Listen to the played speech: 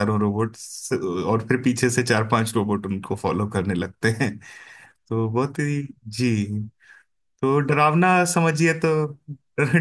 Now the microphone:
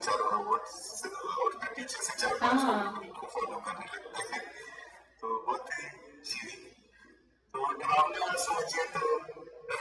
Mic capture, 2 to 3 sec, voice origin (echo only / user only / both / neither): both